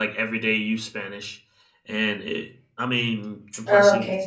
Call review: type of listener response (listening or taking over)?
listening